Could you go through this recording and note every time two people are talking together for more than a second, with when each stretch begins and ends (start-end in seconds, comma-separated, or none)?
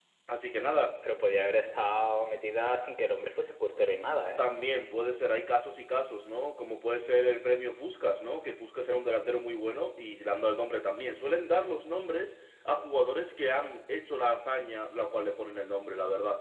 none